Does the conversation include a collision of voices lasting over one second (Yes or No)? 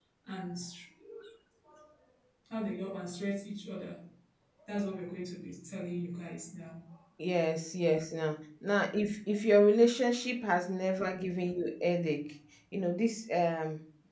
No